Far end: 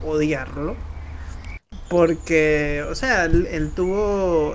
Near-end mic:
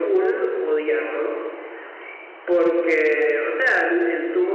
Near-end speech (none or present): none